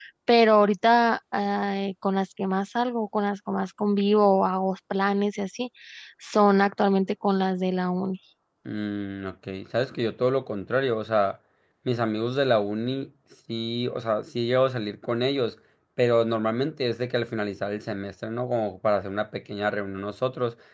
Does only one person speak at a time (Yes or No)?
Yes